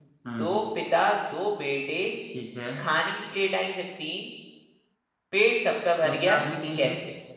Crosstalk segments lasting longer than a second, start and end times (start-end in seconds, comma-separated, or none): none